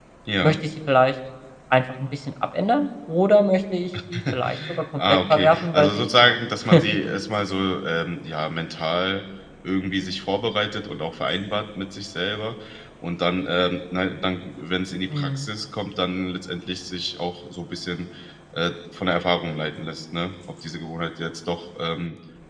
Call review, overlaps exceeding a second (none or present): present